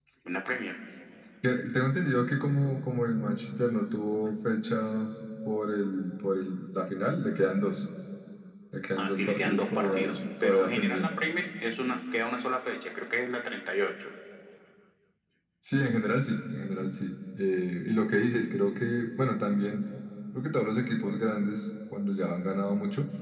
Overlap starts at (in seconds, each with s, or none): 9.0 s